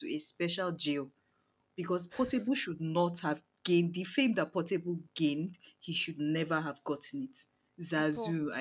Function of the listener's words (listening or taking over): listening